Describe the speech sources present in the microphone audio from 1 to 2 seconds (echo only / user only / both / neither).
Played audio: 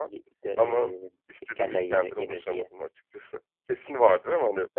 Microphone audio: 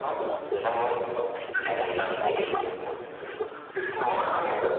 echo only